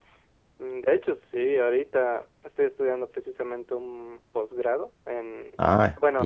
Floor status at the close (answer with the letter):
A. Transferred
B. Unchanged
B